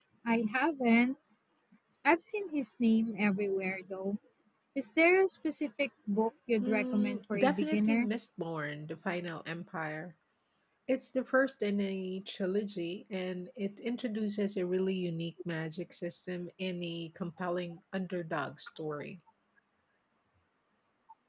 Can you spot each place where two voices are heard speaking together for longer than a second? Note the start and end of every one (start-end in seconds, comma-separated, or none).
6.6-8.1